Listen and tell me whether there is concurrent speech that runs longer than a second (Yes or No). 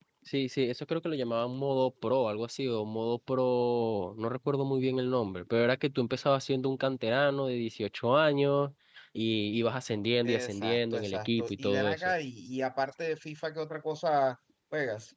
Yes